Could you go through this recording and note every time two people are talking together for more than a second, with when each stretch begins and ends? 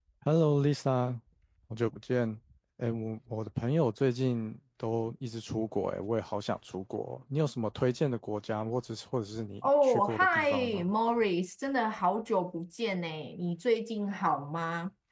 9.6-10.9

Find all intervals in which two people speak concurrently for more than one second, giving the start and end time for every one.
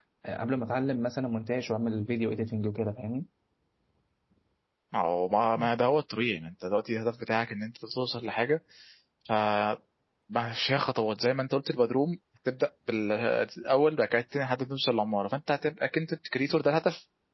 none

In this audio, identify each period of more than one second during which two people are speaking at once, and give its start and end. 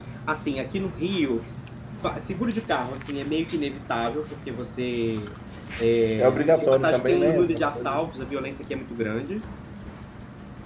6.2-8.1

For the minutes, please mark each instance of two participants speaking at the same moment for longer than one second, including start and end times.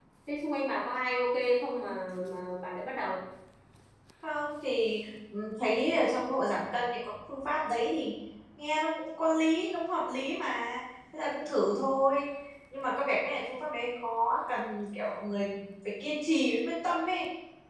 none

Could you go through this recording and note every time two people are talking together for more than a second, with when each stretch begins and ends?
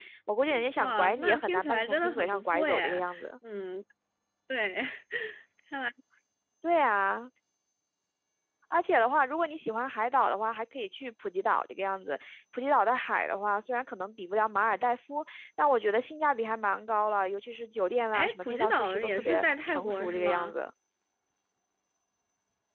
0.8-3.0, 18.1-20.6

